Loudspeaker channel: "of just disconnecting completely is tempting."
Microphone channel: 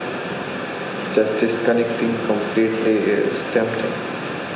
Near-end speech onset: none

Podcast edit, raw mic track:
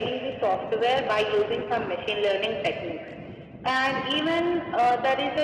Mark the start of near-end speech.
none

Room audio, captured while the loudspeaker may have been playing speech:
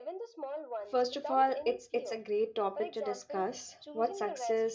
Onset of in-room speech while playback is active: 0.9 s

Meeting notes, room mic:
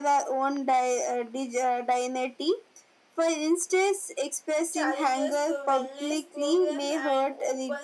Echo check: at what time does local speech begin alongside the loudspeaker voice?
4.8 s

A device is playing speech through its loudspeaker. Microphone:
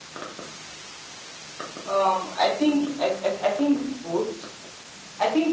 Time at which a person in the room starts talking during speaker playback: none

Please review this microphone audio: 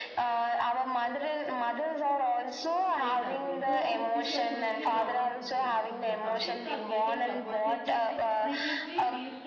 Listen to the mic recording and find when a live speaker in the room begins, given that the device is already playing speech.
3.0 s

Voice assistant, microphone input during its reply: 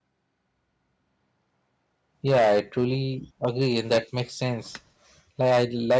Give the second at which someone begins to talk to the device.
2.2 s

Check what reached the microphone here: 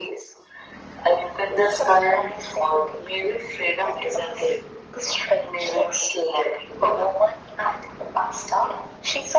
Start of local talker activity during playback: none

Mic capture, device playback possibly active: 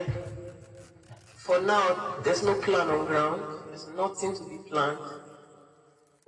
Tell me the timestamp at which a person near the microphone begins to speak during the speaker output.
none

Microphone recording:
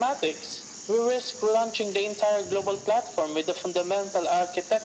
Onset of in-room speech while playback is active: none

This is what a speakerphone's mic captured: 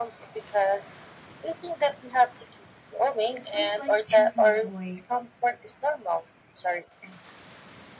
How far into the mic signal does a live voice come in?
3.4 s

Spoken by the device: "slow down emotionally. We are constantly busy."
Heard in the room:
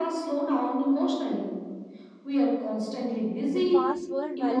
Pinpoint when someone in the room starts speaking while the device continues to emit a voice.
3.5 s

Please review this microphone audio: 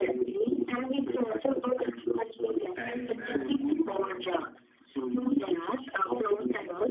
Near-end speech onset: 2.8 s

